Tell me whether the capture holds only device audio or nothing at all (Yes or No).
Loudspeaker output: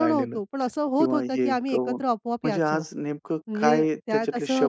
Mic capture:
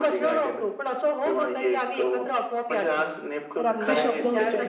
No